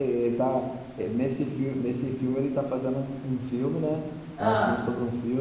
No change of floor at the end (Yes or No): Yes